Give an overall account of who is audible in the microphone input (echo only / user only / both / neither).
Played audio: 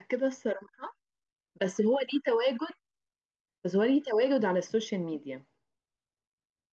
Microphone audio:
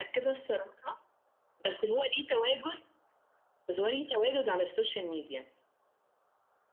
echo only